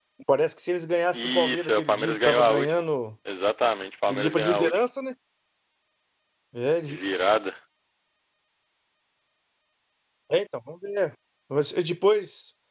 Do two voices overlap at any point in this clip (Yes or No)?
Yes